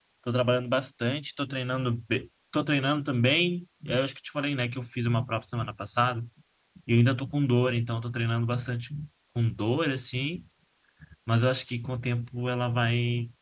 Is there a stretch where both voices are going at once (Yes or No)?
No